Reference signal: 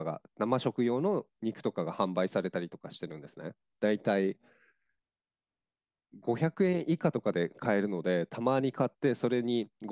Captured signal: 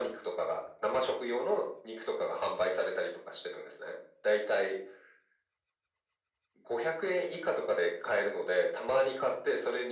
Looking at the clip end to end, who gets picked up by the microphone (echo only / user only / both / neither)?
echo only